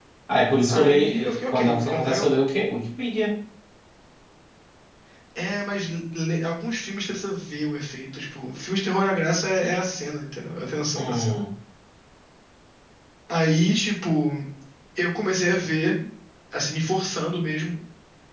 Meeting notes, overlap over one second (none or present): present